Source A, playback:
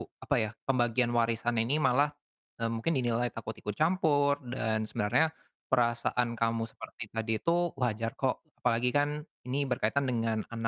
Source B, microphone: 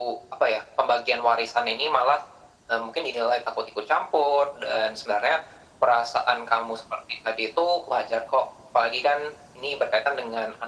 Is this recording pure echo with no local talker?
Yes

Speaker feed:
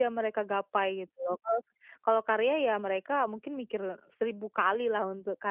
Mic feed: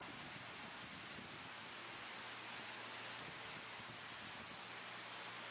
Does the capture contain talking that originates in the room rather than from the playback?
No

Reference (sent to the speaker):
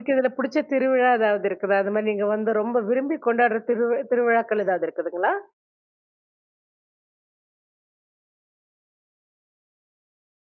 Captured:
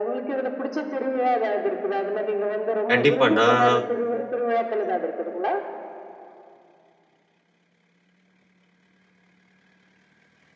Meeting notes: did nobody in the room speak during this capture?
No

